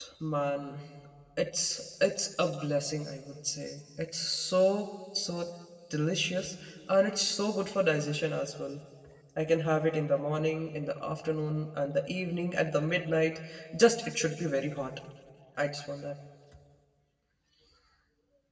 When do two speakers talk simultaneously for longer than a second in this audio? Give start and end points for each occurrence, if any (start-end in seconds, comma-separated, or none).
none